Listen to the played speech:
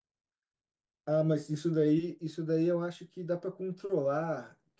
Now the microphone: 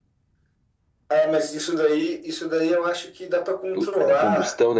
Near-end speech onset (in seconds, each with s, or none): 3.7 s